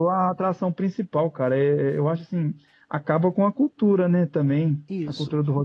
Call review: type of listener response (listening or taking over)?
listening